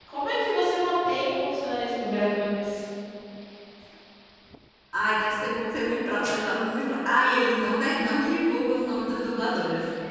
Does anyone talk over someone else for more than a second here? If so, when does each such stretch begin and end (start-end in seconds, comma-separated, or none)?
none